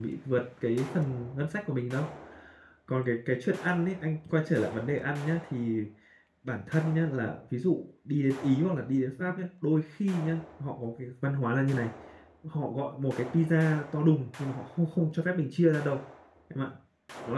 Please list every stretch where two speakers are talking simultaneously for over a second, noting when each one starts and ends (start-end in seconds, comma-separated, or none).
none